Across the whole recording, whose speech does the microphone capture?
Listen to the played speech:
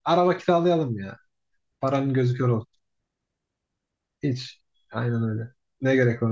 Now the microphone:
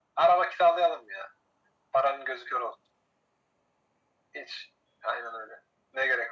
echo only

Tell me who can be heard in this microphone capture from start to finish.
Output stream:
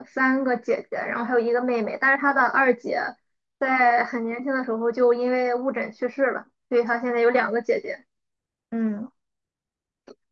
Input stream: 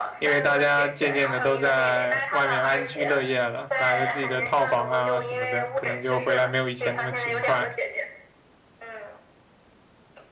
both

